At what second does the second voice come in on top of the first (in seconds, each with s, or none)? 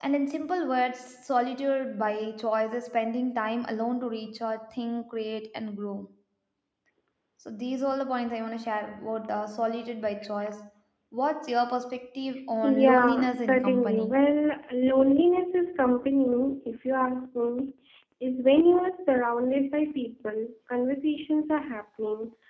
12.6 s